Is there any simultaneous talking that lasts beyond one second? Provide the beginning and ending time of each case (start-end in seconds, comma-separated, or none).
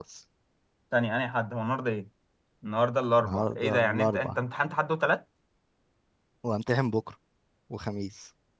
3.2-4.4